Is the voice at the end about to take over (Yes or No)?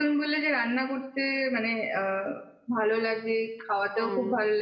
No